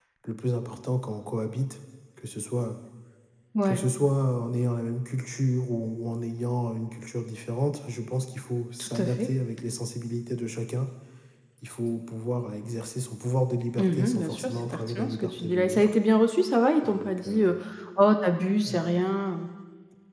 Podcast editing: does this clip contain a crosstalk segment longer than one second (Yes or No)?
Yes